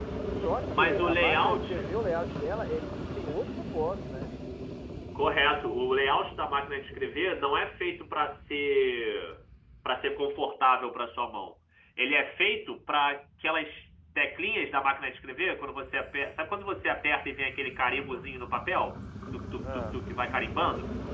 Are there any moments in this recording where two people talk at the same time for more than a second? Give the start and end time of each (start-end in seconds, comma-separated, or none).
0.7-1.9